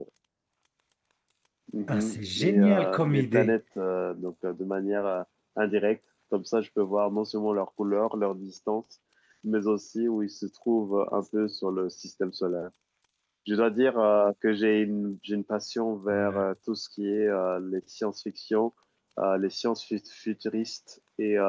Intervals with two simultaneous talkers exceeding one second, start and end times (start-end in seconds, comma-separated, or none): 1.9-3.5